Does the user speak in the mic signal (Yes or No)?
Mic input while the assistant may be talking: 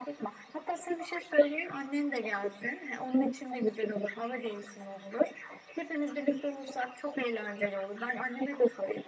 No